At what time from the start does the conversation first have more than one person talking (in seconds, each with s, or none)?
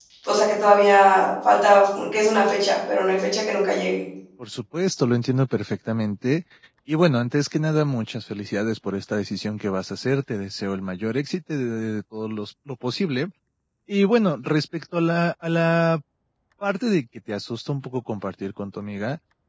none